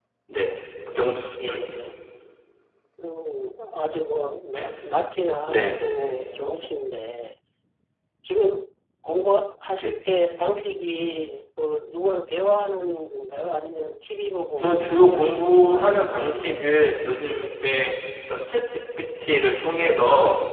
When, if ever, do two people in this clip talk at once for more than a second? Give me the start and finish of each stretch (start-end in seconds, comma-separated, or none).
14.6-16.0